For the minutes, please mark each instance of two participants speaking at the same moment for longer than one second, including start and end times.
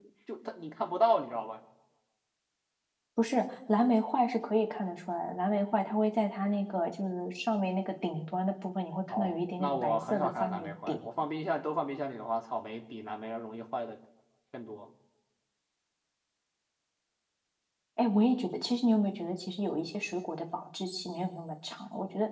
9.1-11.0

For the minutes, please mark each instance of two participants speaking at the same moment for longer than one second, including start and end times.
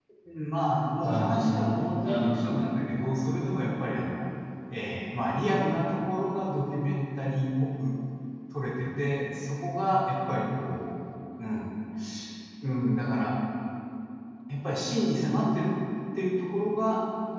1.0-2.4

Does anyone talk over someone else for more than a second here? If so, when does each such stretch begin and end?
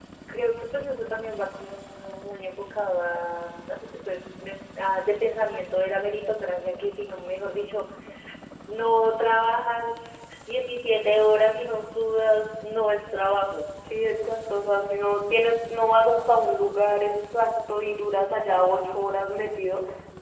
none

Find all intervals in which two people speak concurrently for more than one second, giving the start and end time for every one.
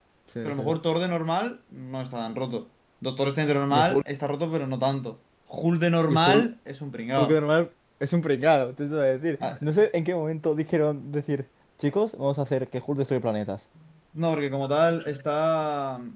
none

